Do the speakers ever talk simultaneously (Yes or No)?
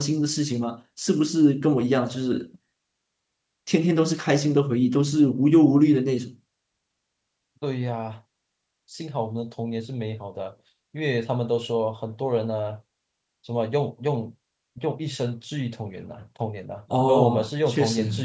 Yes